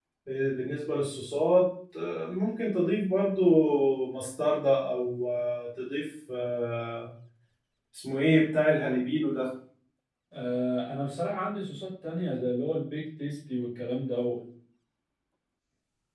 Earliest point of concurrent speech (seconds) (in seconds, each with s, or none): none